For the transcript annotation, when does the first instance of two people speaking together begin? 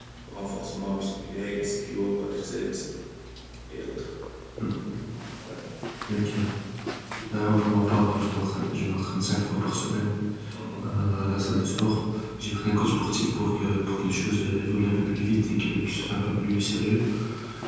none

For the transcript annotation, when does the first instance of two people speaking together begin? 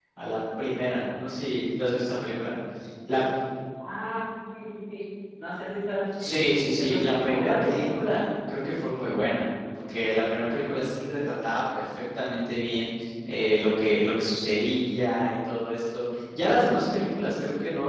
6.1 s

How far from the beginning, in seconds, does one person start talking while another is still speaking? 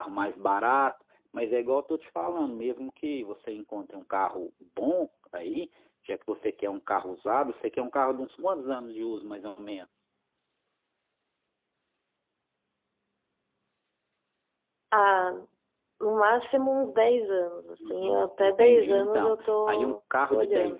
17.8 s

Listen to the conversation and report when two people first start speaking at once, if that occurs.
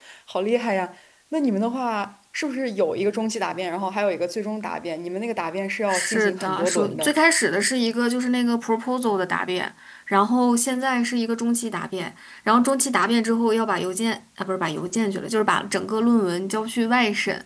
5.9 s

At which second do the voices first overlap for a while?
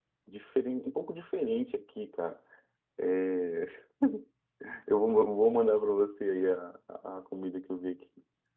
none

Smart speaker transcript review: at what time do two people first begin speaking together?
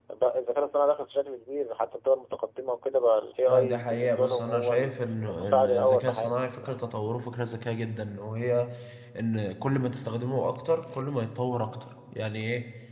3.5 s

